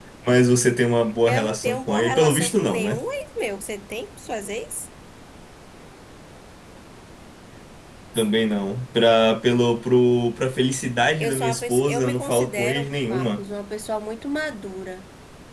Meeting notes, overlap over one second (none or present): present